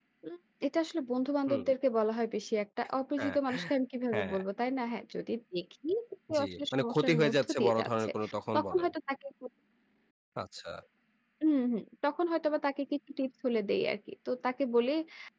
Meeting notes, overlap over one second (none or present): present